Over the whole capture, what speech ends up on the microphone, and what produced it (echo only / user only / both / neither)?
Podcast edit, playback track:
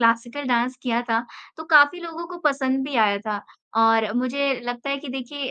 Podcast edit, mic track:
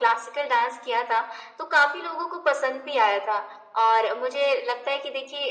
echo only